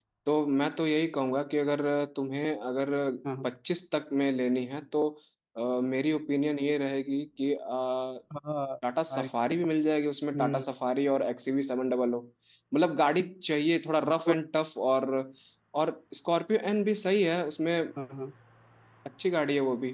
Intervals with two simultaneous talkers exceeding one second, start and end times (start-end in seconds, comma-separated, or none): none